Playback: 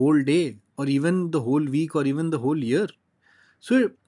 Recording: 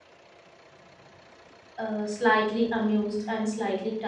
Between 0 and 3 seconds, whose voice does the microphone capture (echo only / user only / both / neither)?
user only